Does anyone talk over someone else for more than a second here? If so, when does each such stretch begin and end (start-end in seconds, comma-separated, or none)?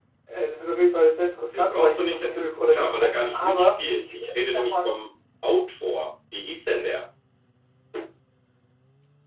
1.5-4.9